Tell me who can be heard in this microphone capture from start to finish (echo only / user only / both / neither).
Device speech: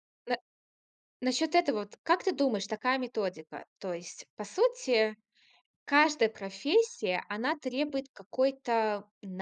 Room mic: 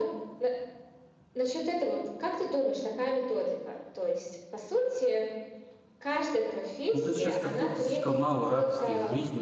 both